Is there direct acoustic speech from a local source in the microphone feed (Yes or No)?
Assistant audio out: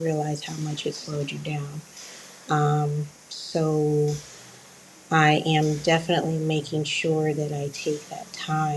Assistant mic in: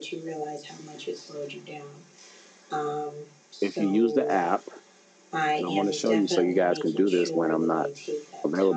Yes